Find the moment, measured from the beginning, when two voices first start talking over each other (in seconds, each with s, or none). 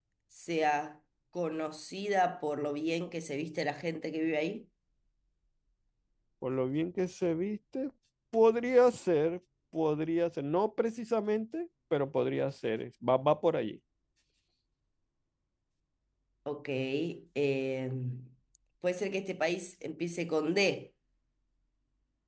none